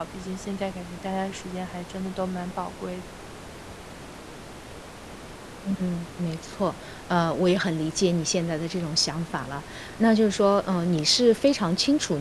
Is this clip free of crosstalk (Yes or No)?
Yes